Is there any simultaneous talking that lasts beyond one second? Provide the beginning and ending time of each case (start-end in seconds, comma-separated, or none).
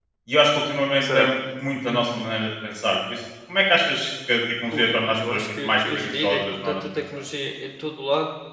4.7-7.0